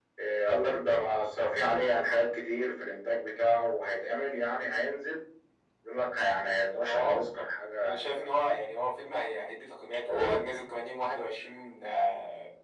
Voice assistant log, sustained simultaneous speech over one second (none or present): none